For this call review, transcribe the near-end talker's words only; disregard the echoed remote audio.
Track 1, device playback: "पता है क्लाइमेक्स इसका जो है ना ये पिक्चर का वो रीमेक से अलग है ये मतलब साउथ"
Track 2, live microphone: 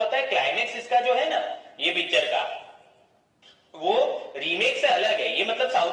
none

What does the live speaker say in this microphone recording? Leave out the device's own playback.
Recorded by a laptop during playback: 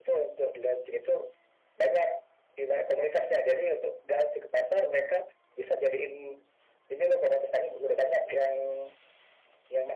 none

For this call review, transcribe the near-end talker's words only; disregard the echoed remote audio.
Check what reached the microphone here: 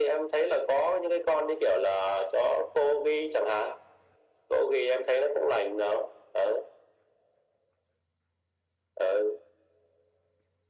none

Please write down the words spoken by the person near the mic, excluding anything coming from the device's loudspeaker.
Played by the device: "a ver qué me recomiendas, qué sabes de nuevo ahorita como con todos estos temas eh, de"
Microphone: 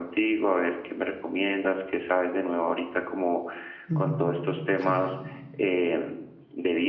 Ujú, Sí.

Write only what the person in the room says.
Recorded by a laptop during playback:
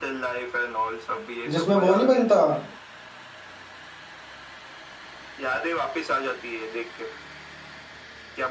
जिसमें वो नहीं बनता

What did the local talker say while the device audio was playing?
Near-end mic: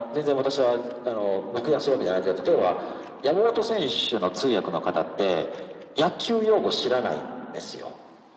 none

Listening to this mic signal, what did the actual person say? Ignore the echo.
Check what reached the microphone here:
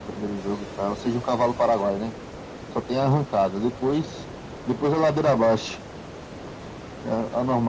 none

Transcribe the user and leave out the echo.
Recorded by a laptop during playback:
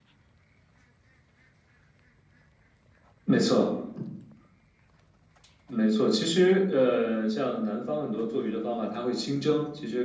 none

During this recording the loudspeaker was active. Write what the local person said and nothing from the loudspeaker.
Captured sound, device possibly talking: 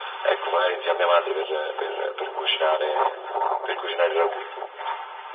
none

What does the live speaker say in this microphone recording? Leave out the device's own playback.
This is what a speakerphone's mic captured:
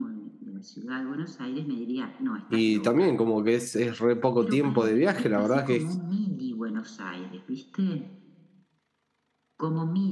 Y también como que es, es re poco tiempo de viaje, la verdad que es,

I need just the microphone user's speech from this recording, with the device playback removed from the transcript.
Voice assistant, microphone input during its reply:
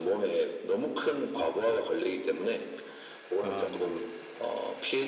아, 네네.

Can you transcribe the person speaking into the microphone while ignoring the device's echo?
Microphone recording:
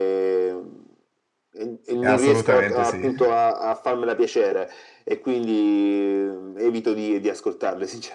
Eh, Assolutamente sì.

